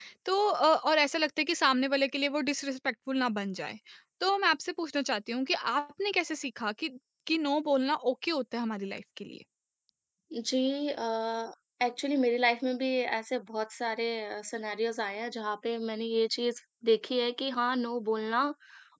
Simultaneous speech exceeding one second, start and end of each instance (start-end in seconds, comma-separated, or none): none